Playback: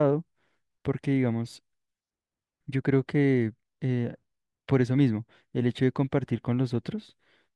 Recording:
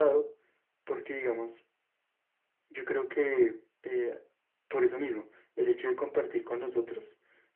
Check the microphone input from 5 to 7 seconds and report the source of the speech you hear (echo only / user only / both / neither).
echo only